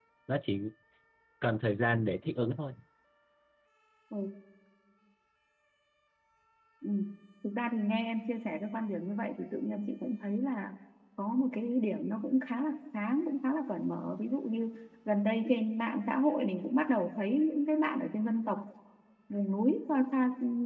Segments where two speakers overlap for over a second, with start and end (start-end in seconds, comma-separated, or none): none